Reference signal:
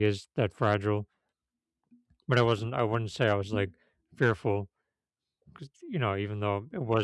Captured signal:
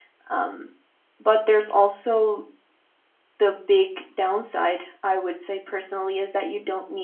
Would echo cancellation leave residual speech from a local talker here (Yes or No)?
Yes